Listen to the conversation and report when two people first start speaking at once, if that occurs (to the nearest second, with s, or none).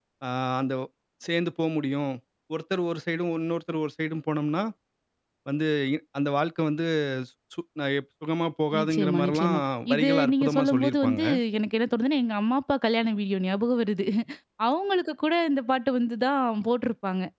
9 s